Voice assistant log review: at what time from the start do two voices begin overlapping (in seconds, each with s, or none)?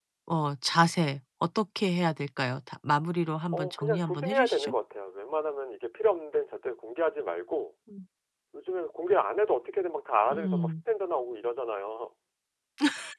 3.5 s